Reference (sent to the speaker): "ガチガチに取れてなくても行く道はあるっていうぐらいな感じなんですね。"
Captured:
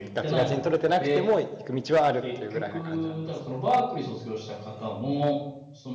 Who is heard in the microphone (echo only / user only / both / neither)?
both